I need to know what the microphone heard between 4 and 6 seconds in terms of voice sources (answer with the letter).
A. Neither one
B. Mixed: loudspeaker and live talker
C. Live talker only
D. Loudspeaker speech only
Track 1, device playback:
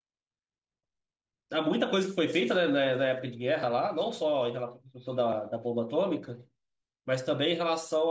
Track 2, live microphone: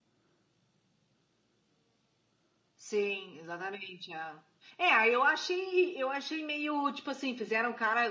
C